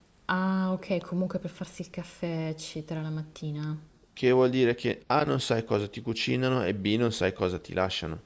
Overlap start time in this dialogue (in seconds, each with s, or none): none